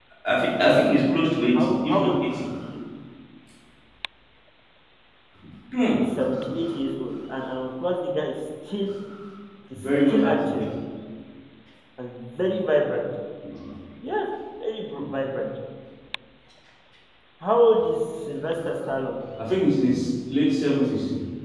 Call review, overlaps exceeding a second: present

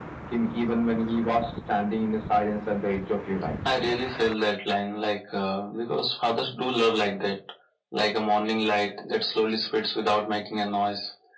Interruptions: none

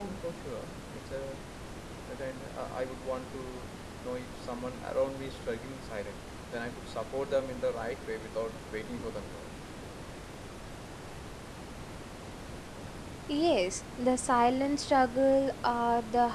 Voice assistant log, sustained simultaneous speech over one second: none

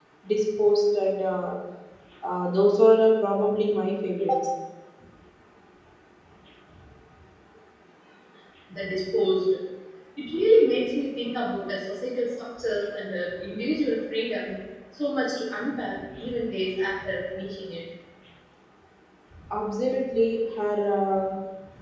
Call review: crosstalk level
none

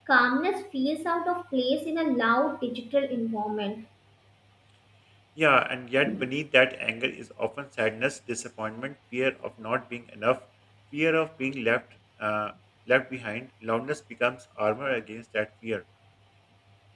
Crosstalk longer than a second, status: none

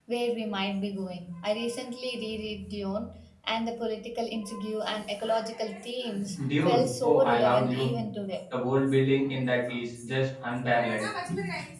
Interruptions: present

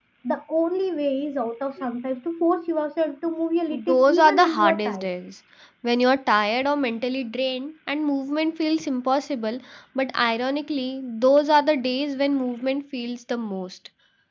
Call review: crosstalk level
present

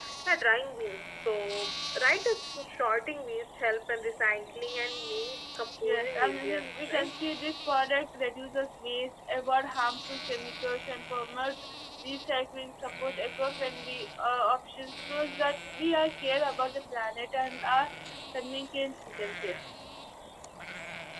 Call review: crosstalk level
present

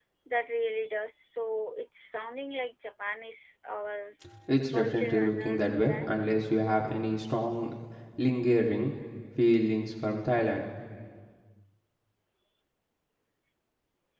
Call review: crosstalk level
present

